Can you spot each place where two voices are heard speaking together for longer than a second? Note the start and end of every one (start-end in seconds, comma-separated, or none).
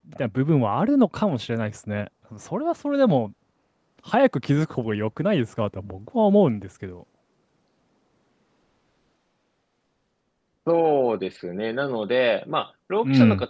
none